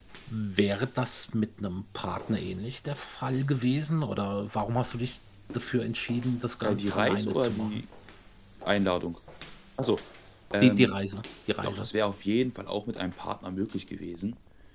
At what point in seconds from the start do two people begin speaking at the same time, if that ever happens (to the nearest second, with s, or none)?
7 s